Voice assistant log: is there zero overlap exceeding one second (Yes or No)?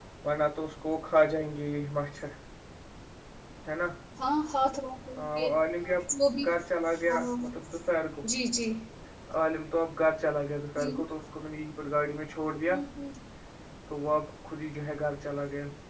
Yes